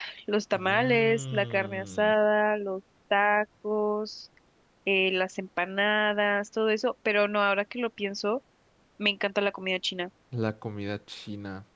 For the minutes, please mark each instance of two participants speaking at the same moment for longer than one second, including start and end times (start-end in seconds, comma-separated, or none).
0.5-2.1